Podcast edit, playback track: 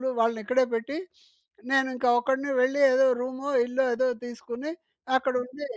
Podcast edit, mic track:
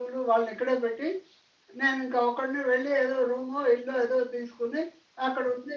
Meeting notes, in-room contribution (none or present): none